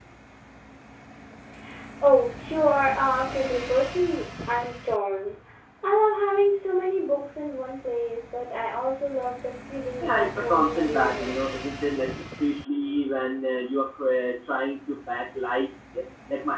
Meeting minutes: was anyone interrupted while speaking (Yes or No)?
Yes